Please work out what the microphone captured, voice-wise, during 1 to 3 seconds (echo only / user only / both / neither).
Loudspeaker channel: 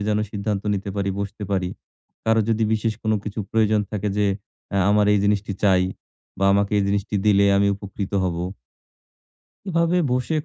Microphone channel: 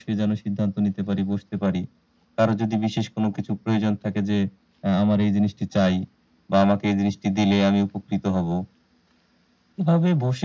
echo only